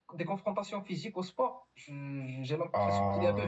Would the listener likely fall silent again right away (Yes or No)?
No